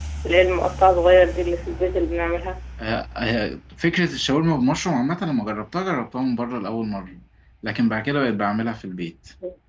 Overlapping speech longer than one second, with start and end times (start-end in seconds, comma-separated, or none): none